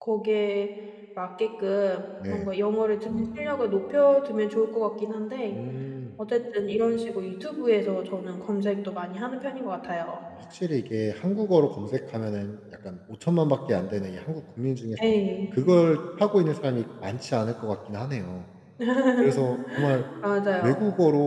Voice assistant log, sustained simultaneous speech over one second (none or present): none